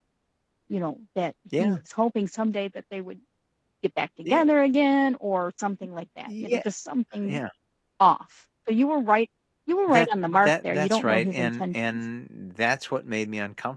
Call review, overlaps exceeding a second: present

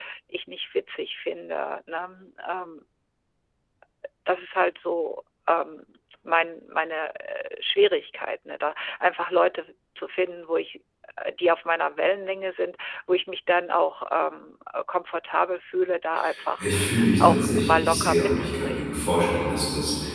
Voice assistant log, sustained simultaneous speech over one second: present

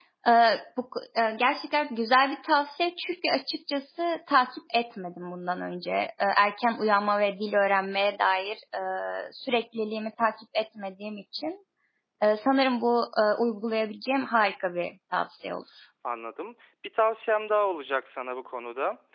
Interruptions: none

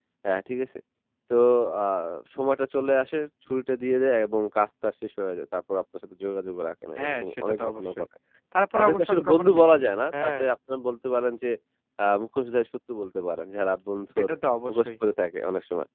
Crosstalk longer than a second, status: present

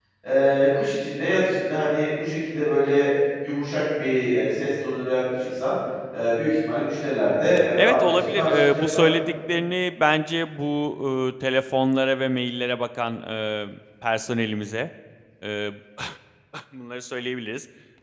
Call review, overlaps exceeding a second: present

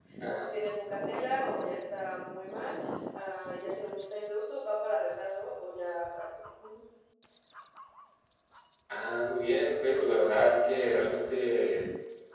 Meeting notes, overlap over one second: none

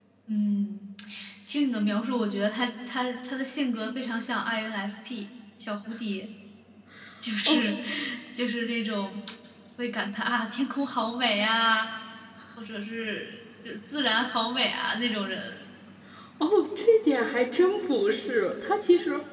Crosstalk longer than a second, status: none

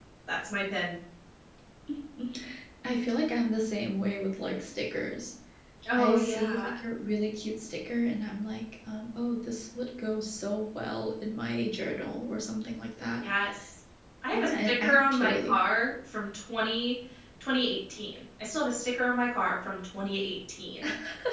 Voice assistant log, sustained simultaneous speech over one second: present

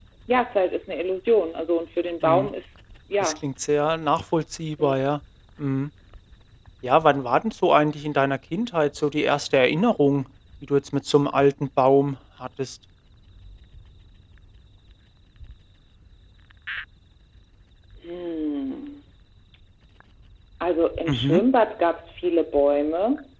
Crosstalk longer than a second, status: none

